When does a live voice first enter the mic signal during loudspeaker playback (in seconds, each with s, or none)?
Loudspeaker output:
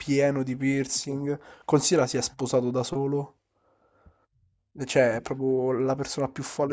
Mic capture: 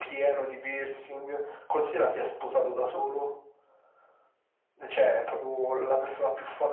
none